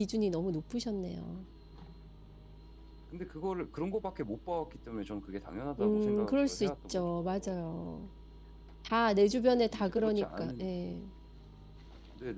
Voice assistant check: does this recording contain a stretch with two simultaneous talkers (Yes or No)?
Yes